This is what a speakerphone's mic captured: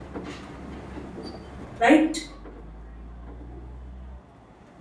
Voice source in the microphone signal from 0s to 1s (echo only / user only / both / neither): neither